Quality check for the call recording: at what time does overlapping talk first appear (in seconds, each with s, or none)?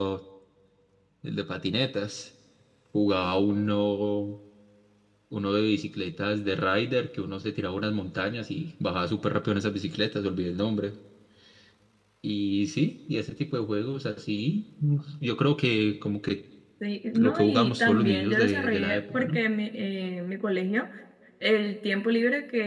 17.1 s